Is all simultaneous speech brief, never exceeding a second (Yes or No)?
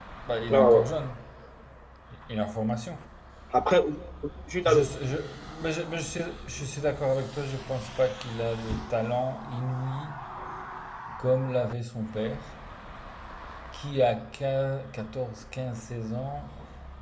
Yes